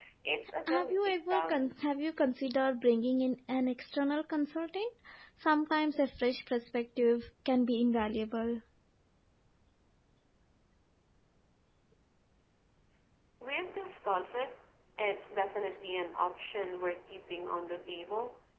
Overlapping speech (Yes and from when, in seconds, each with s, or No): Yes, from 0.7 s